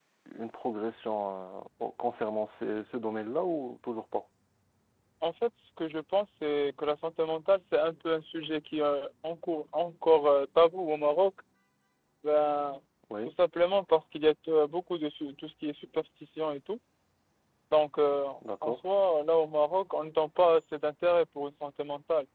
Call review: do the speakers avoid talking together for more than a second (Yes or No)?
Yes